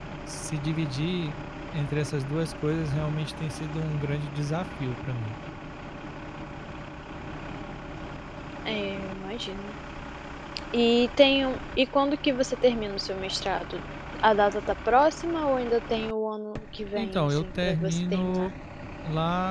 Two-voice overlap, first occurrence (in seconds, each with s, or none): 17.0 s